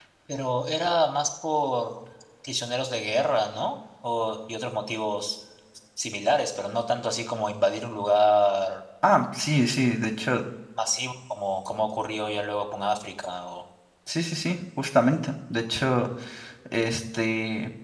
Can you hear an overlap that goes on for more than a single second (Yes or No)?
No